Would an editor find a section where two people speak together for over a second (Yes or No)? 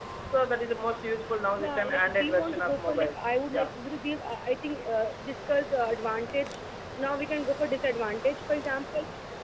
Yes